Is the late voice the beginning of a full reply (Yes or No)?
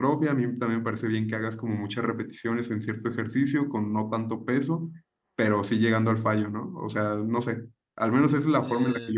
No